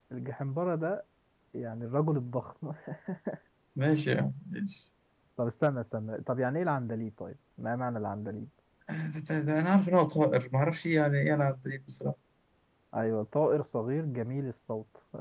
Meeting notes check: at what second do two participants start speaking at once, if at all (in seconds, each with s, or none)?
none